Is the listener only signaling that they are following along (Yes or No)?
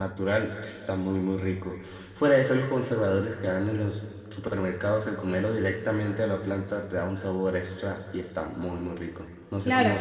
No